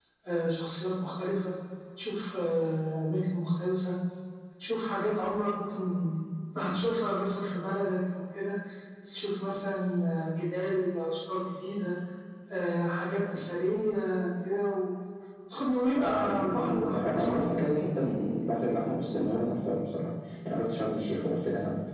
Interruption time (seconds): 16.0 s

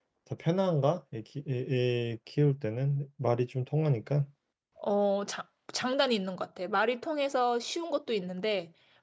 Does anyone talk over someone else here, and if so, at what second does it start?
none

